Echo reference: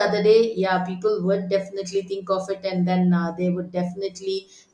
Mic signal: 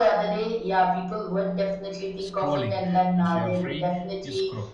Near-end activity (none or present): present